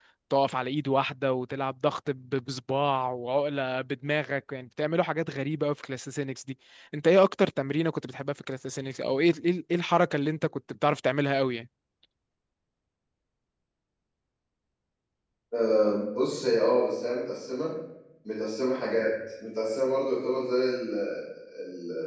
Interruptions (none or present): none